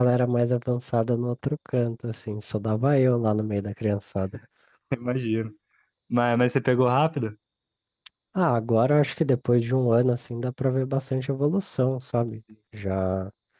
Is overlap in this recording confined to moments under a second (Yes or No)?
Yes